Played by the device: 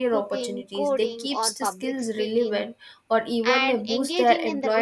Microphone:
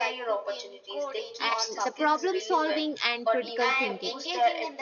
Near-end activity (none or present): present